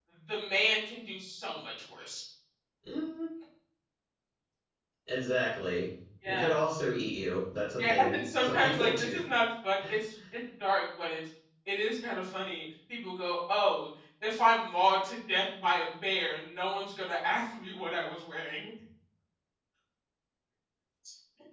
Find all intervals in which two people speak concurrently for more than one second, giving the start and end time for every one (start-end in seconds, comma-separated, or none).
7.8-9.2